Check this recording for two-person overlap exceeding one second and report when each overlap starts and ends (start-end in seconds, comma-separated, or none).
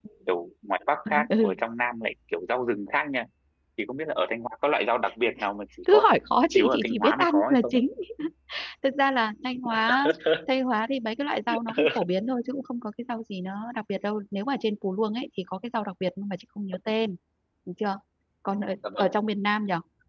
6.5-7.8